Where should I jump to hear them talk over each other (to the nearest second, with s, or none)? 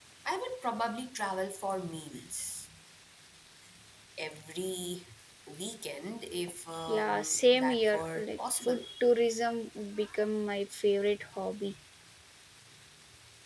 7 s